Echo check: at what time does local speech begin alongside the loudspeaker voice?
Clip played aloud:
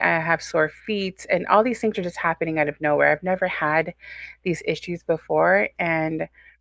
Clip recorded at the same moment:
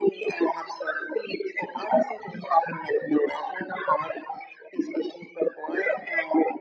none

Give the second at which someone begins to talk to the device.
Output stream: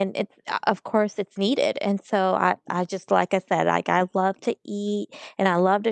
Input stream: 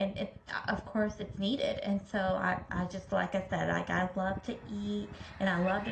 none

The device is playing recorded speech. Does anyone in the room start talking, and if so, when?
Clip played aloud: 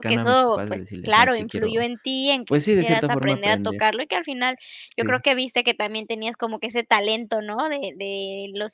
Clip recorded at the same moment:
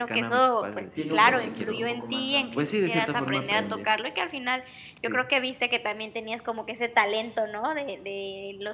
0.9 s

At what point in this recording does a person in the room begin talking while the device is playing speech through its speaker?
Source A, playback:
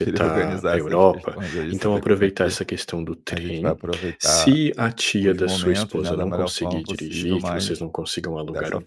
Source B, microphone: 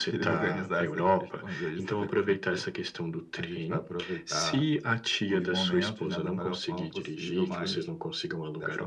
none

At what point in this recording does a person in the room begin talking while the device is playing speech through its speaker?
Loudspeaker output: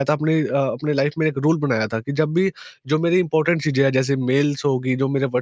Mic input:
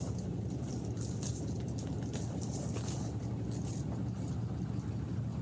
none

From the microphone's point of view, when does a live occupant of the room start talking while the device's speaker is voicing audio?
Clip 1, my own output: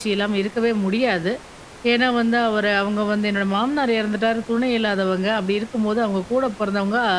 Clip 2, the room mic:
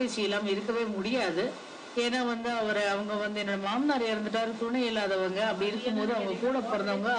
5.6 s

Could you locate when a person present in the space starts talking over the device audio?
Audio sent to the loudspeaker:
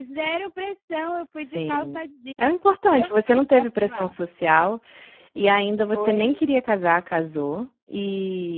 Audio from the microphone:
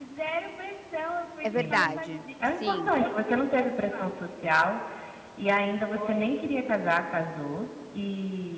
1.4 s

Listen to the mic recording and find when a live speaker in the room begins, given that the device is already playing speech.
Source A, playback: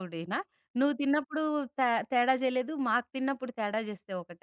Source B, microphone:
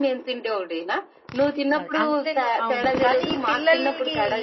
1.8 s

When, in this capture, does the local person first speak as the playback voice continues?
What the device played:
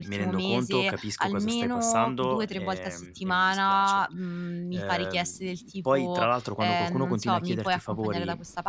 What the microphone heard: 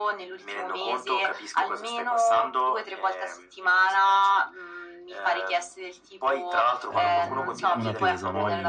6.9 s

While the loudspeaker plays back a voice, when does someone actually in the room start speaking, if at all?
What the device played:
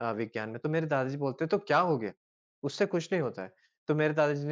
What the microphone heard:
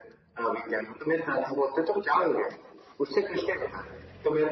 none

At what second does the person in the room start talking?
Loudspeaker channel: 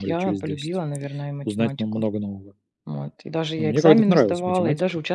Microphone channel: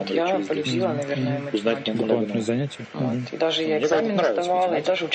0.6 s

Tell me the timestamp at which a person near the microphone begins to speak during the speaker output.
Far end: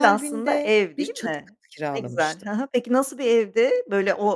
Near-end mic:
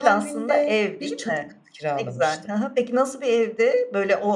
none

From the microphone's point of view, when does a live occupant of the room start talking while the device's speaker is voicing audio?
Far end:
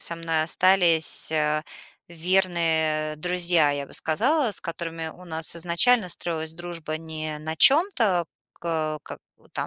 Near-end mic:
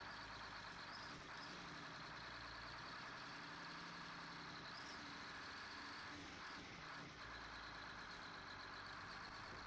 none

